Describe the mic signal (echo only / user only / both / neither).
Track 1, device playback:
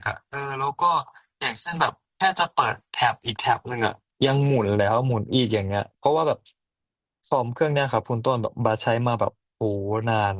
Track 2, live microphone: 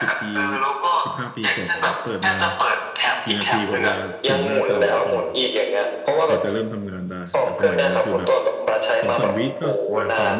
both